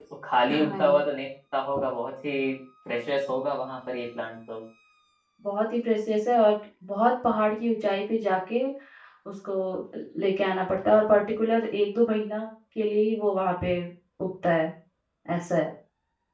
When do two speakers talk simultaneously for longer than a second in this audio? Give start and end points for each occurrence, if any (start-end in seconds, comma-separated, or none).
none